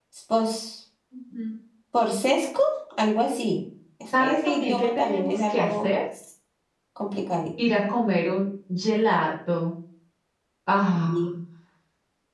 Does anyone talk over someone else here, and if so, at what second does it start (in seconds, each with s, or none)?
4.2 s